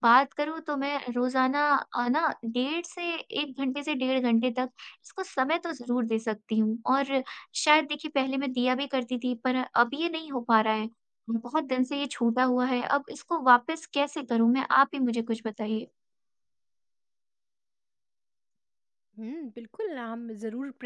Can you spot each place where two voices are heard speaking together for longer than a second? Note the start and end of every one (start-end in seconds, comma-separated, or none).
none